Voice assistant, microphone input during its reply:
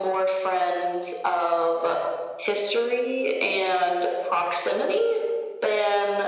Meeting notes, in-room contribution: none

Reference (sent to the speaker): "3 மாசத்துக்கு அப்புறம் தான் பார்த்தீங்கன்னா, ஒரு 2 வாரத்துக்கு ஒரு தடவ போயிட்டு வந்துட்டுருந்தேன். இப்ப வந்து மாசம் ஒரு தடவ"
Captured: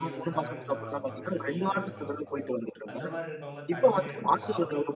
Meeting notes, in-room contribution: present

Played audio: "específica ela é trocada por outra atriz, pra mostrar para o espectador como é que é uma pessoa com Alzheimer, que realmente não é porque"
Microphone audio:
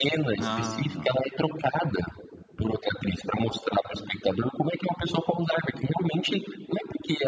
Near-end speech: present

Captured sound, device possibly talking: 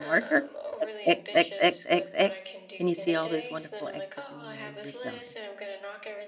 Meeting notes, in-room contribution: present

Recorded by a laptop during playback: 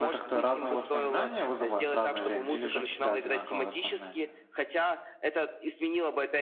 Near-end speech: present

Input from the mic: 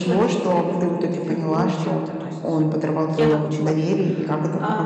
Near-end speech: present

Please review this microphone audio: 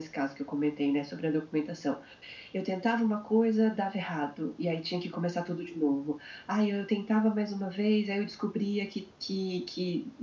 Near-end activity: none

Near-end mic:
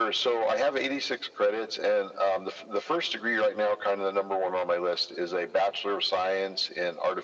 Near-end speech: none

